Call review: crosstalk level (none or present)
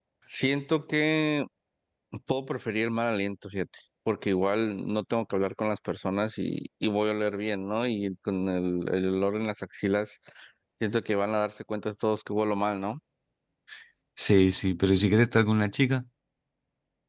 none